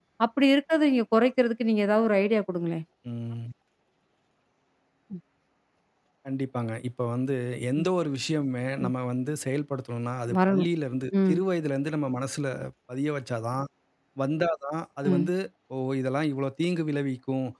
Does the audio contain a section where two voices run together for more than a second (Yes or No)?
No